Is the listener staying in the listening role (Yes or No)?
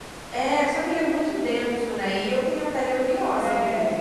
No